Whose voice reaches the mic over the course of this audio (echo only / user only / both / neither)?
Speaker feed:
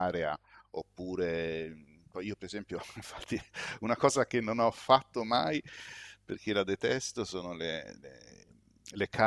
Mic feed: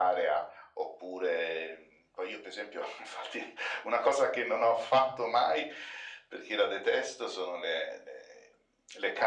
echo only